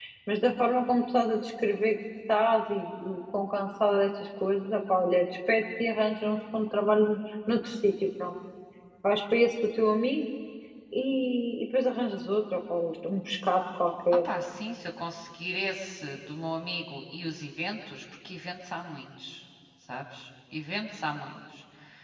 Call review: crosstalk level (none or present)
none